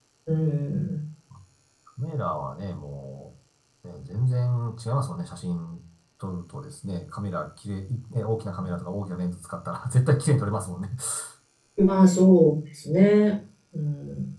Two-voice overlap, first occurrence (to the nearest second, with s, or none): none